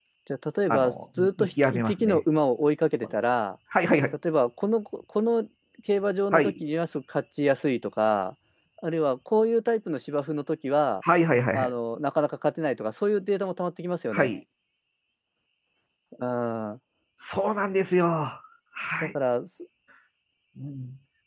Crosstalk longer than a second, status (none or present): present